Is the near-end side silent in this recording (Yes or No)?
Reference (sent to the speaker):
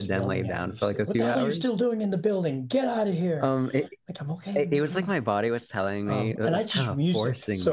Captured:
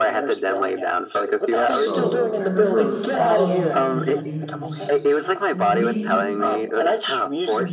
No